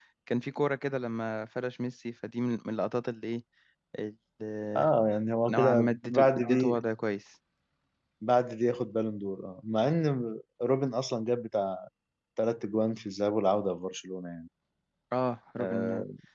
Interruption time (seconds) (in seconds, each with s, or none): 5.5 s